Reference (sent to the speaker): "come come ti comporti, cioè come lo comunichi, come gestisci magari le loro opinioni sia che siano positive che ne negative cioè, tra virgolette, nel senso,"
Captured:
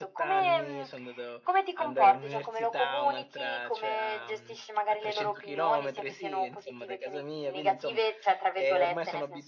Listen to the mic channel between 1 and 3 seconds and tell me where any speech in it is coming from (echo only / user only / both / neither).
both